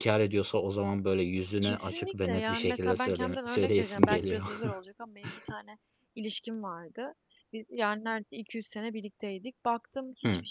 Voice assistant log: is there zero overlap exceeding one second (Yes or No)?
No